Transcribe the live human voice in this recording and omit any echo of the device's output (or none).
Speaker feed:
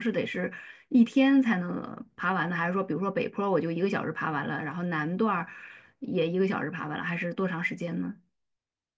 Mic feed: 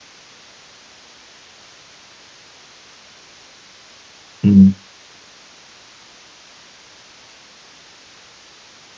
嗯。